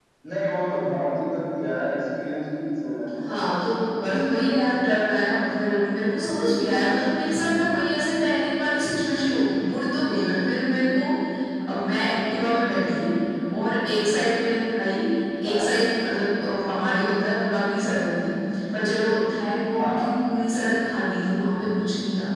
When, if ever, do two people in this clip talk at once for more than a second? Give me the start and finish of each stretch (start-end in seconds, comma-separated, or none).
none